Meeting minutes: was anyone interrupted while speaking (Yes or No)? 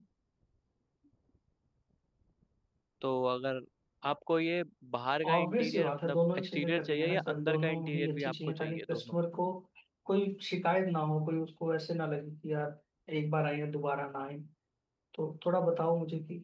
Yes